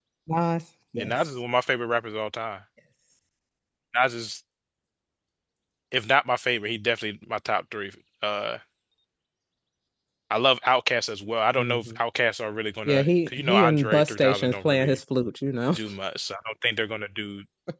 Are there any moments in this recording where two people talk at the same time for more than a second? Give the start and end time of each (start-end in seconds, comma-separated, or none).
12.8-15.0